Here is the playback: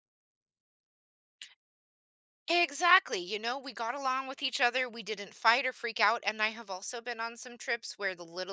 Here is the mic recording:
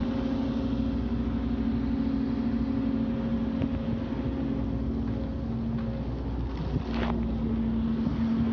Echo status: none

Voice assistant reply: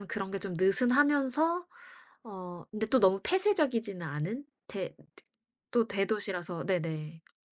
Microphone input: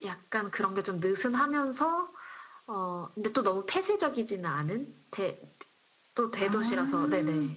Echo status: present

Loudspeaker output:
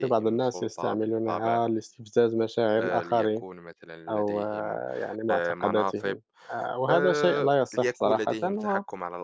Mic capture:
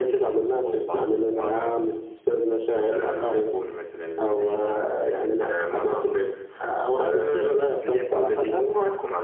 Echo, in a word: present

